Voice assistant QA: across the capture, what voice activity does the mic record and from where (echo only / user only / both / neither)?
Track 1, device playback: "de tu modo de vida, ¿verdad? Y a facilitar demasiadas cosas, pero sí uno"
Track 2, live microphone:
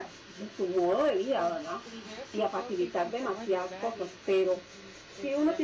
both